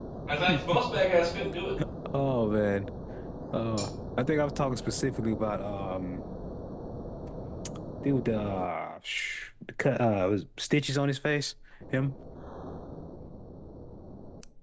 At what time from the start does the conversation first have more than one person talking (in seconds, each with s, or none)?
none